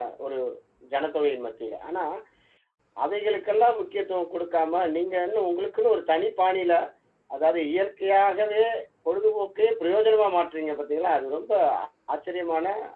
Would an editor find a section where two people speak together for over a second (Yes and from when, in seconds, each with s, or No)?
No